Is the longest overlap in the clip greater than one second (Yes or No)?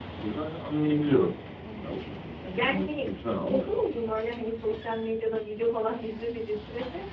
No